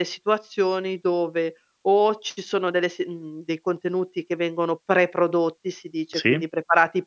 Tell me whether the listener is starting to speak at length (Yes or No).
No